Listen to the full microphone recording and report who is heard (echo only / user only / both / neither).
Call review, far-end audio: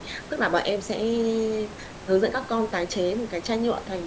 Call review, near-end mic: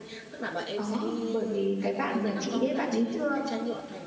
both